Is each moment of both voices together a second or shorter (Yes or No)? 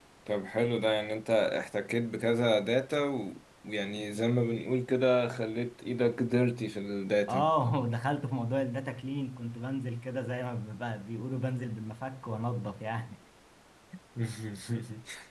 Yes